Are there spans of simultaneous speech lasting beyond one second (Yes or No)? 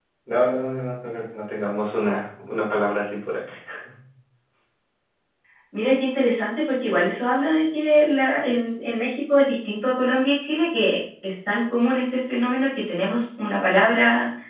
No